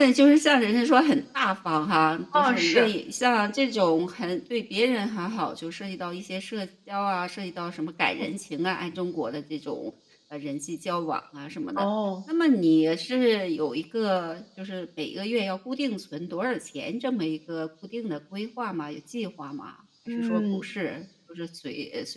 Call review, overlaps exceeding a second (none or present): none